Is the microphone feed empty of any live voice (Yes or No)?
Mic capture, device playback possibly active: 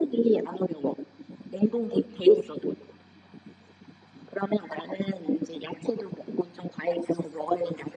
Yes